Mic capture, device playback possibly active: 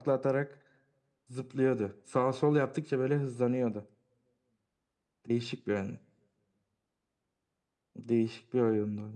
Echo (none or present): present